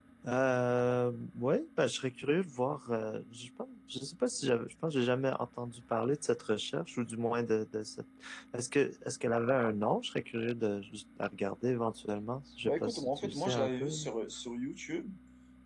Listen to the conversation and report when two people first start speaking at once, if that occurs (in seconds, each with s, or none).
12.6 s